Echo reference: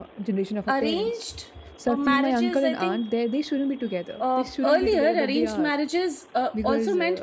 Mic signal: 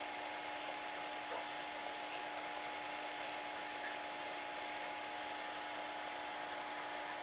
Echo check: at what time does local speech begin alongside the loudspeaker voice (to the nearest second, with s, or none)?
none